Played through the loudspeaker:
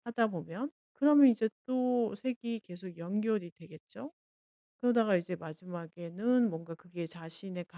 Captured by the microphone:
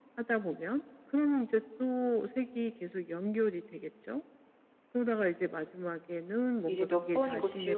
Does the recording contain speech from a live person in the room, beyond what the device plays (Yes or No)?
Yes